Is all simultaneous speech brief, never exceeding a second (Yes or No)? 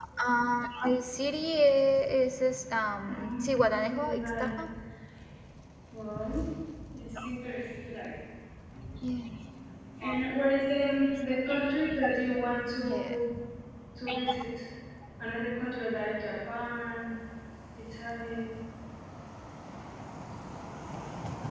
No